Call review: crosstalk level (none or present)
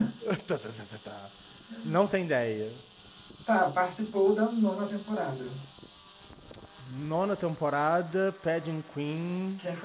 none